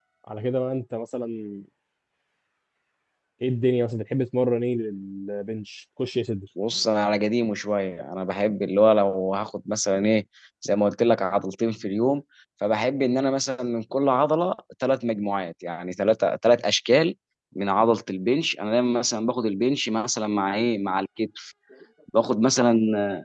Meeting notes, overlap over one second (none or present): none